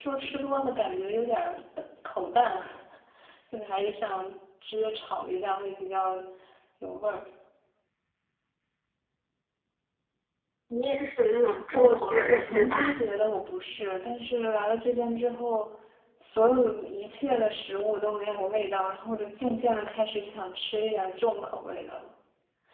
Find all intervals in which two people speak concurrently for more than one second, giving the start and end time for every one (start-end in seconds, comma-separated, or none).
11.7-13.0